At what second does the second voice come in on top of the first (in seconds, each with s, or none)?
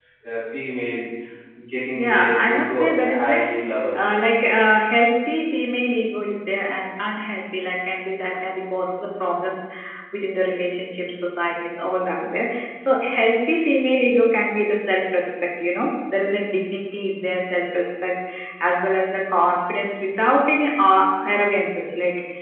1.9 s